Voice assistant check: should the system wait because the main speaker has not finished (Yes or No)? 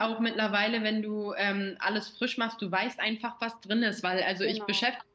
Yes